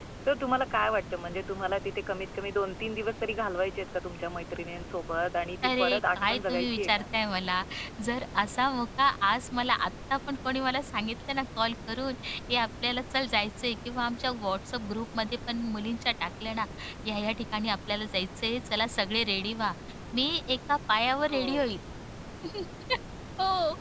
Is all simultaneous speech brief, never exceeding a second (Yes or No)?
No